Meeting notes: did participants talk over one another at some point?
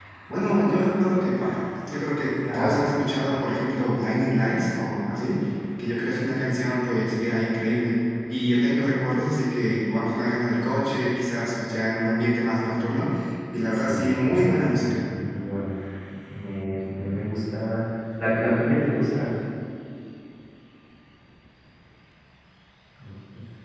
Yes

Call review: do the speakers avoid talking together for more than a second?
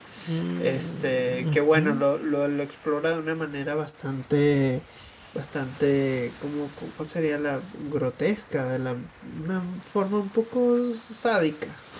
No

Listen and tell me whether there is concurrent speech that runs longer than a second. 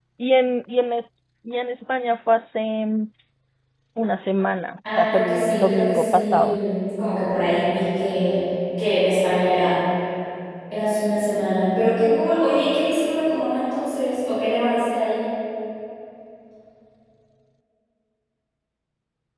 Yes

